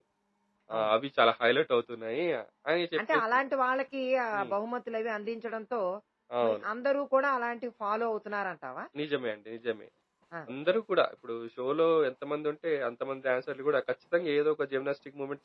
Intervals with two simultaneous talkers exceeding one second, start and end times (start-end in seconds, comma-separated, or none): none